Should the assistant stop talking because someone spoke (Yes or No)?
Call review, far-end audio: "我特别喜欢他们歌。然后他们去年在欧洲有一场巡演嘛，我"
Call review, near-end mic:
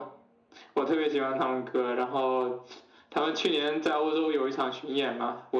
No